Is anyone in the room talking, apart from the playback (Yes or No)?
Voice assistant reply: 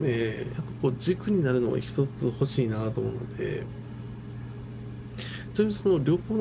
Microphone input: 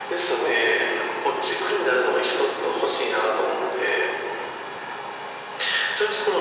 No